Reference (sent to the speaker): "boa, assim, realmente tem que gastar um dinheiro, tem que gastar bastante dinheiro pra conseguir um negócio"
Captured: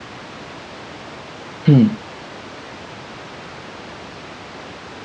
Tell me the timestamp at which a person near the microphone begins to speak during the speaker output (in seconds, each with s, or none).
1.7 s